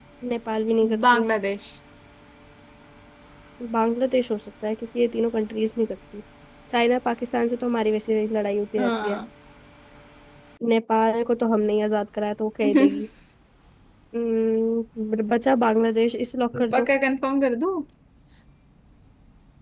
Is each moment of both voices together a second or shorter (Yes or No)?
Yes